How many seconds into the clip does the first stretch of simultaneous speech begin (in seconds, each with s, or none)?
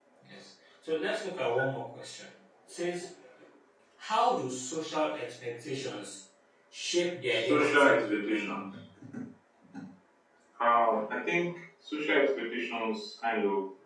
7.3 s